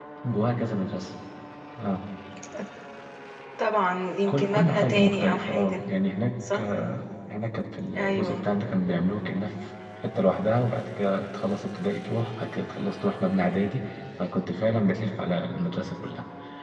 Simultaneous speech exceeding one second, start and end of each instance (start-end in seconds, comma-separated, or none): 4.3-5.8